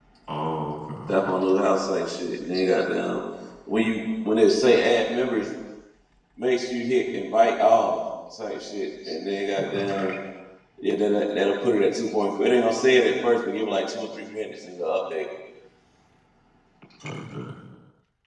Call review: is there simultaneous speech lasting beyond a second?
No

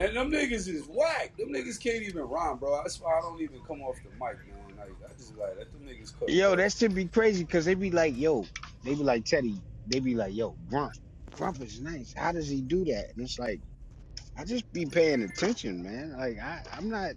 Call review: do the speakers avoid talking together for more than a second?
Yes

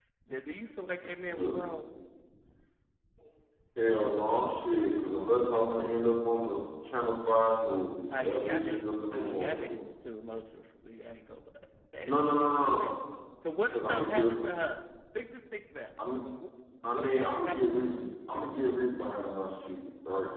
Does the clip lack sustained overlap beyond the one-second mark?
No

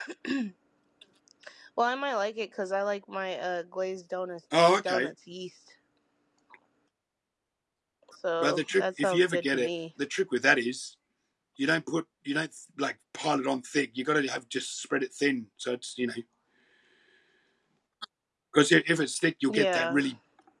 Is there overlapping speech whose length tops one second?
Yes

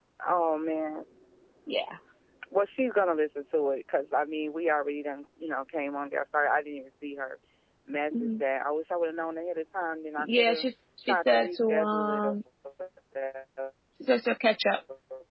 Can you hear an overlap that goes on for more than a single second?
Yes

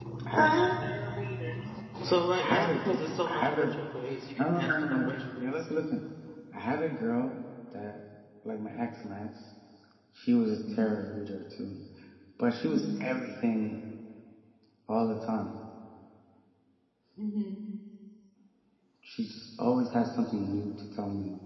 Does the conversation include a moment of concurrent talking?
Yes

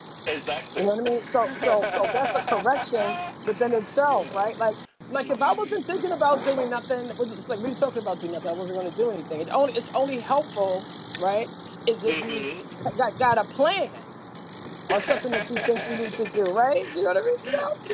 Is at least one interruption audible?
Yes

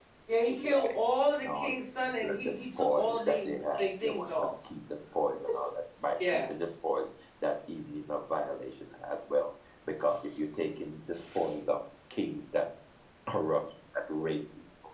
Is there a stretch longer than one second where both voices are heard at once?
Yes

